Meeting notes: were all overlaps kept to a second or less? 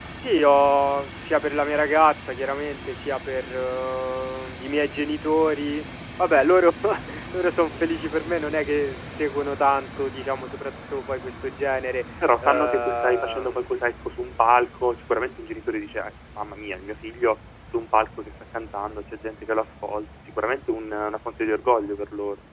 No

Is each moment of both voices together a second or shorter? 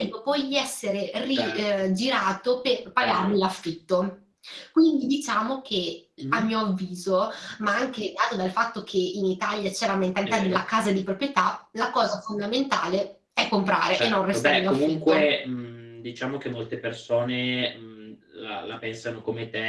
No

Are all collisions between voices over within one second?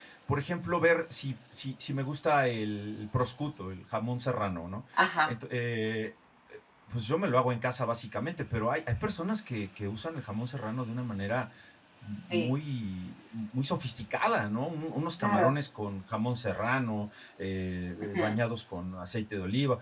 Yes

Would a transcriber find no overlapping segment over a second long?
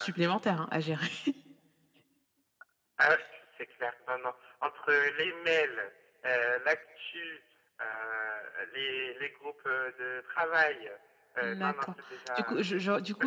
Yes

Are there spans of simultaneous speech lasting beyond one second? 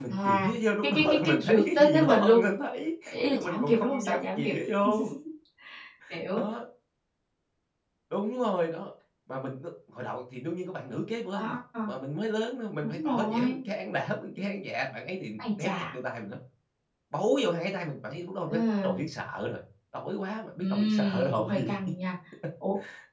Yes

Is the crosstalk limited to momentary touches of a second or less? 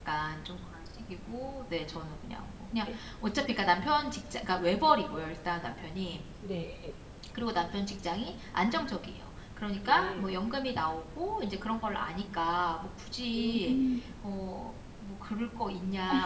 Yes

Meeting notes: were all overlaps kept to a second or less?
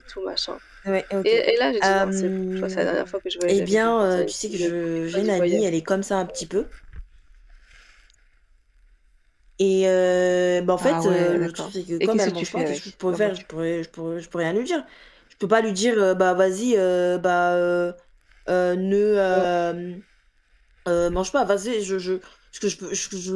No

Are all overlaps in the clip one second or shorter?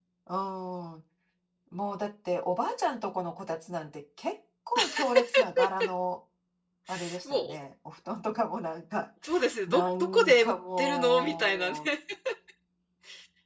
No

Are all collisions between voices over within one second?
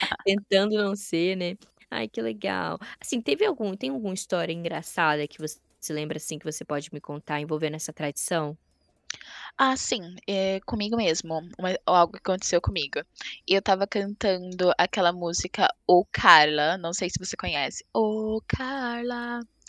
Yes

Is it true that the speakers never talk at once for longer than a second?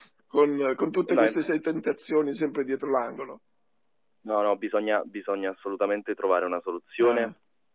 Yes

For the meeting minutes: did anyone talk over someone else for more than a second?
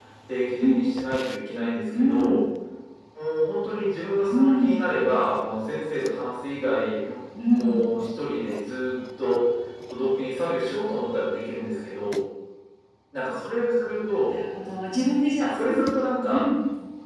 No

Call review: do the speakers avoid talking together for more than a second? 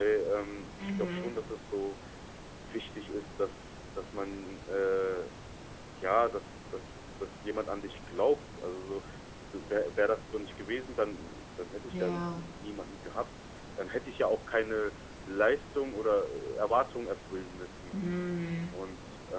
Yes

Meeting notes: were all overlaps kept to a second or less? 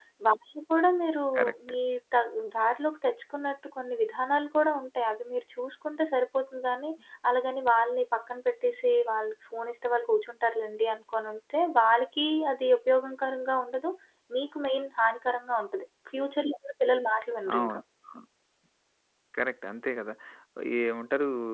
Yes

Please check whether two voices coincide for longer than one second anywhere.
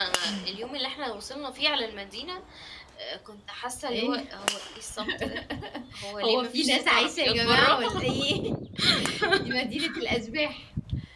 Yes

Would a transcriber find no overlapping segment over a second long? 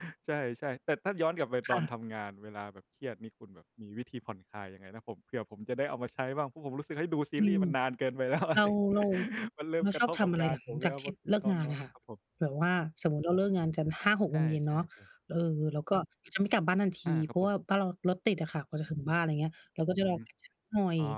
No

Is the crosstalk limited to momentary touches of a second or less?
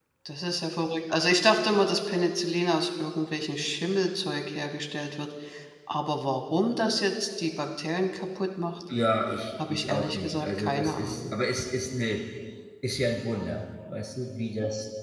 No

